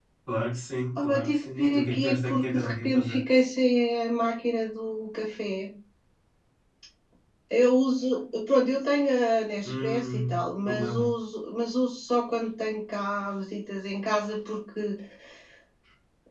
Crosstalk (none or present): present